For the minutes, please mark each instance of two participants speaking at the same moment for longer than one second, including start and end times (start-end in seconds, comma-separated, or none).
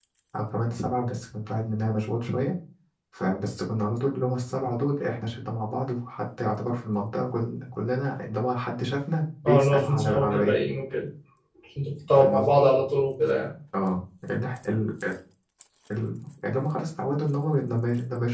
9.4-10.7